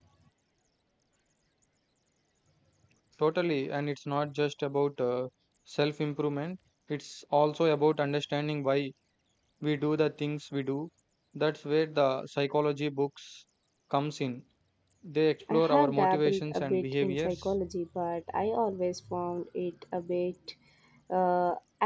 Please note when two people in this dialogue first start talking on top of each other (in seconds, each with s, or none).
15.5 s